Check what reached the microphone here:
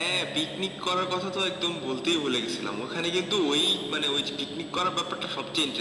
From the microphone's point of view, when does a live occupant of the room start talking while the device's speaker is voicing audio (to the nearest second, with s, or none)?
none